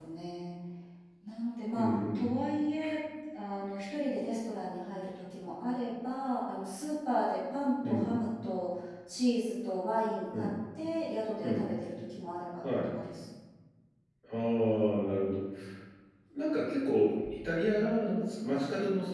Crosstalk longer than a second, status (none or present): none